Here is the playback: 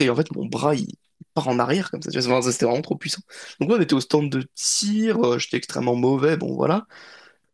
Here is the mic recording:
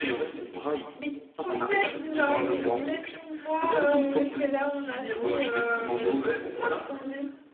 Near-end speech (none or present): present